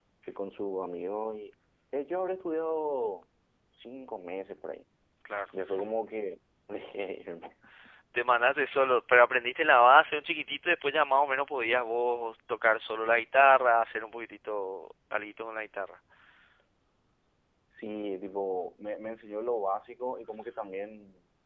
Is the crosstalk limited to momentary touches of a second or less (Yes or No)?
Yes